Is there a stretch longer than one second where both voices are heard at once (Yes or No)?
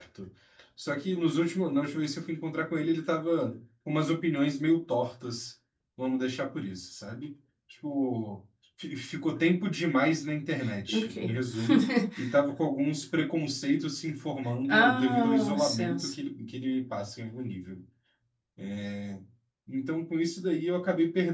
Yes